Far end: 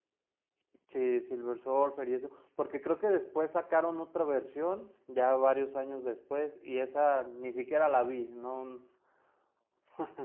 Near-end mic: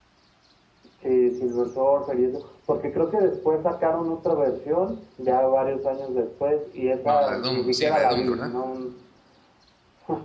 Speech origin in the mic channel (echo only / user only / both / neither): both